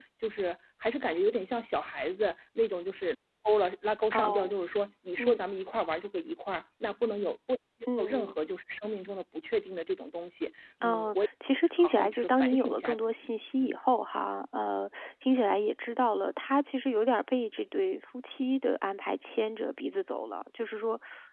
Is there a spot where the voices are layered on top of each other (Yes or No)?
Yes